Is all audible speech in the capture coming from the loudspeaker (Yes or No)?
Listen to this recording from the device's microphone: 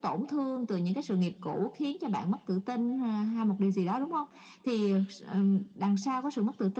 Yes